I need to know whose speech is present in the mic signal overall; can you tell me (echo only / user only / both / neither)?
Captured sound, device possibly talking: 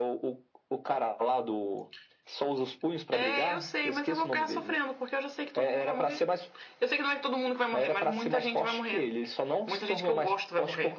echo only